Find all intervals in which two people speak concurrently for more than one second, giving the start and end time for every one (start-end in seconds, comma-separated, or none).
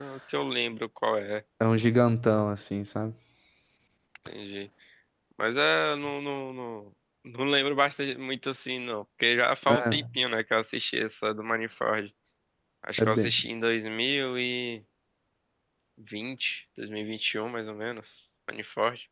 none